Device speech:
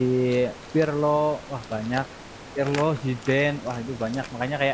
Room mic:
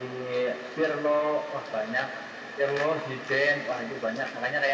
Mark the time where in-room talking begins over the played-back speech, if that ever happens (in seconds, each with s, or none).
none